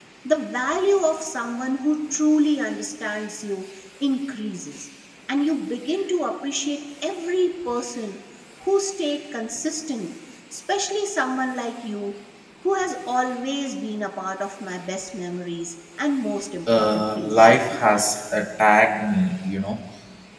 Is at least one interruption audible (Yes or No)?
Yes